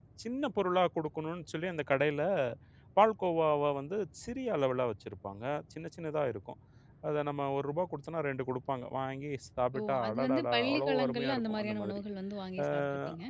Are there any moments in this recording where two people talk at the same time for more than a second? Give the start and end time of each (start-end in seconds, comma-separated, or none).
9.8-12.0